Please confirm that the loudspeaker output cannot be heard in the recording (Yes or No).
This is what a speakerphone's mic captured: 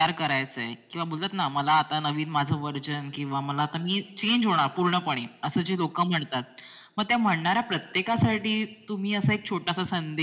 No